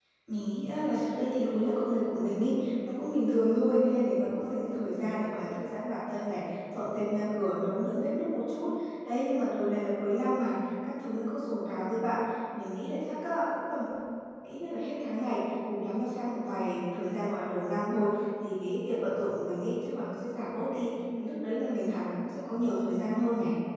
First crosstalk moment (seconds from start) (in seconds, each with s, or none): none